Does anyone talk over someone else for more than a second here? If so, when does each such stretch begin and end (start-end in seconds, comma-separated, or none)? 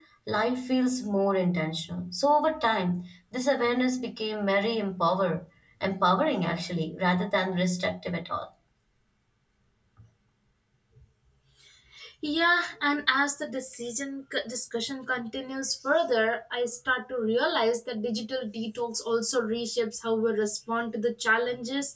none